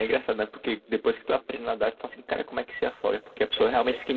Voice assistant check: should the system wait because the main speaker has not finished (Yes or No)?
Yes